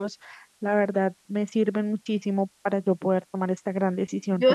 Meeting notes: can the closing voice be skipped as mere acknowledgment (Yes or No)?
No